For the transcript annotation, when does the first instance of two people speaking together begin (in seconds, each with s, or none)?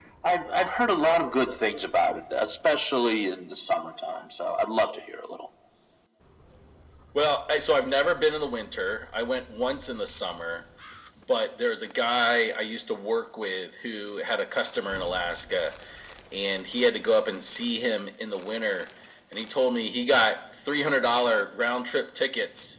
none